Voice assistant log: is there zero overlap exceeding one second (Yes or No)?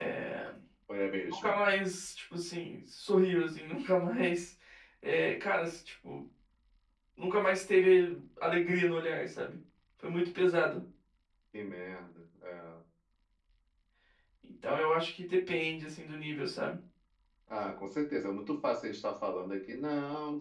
Yes